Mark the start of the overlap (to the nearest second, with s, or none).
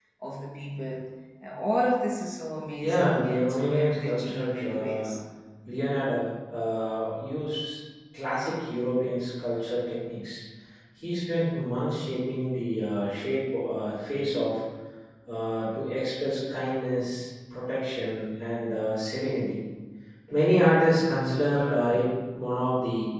3 s